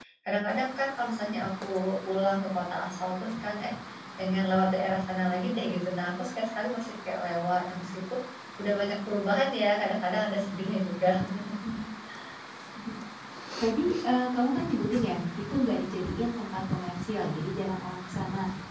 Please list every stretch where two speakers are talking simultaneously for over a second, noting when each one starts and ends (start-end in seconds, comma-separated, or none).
none